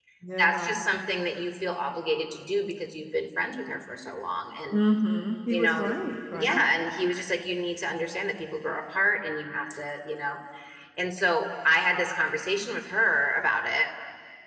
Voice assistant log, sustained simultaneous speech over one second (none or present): none